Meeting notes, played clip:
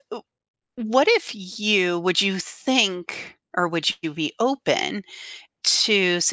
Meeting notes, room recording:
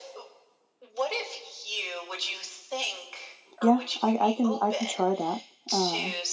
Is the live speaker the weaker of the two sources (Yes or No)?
No